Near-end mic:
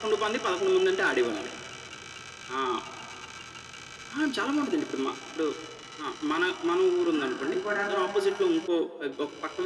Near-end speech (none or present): present